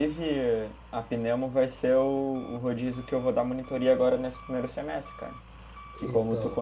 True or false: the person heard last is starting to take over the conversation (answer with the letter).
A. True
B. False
B